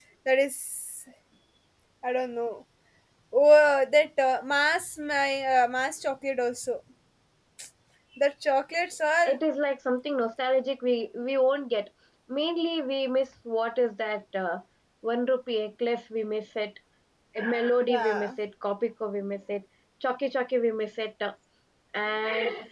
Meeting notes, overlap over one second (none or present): none